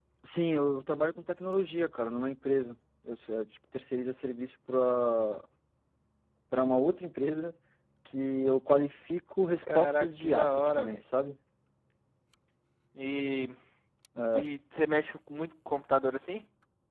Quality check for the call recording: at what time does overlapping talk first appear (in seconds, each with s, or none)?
9.6 s